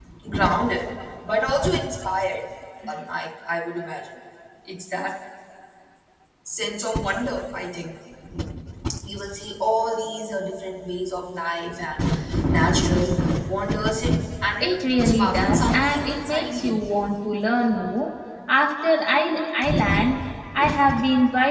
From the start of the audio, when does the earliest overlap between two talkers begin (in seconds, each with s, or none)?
14.6 s